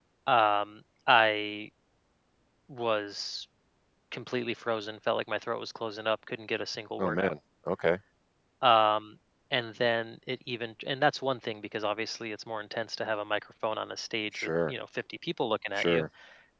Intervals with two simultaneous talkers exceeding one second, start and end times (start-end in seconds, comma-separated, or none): none